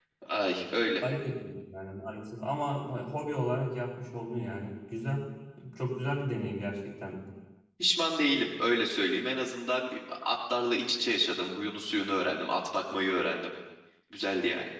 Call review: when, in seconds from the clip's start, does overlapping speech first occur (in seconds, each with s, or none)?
none